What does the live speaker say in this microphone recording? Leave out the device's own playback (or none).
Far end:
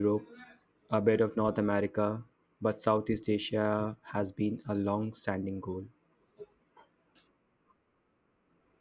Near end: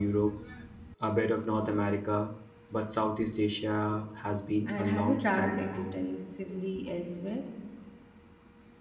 and have you traveled extensively elsewhere?